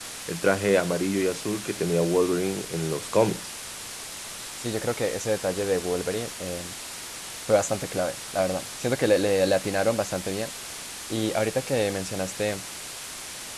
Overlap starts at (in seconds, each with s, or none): none